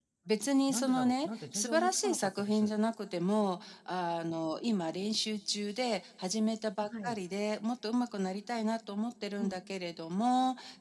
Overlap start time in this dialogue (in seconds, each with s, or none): 0.7 s